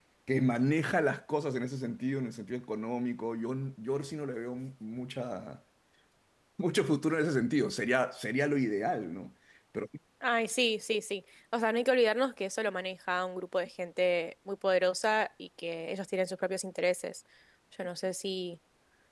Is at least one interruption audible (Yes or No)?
No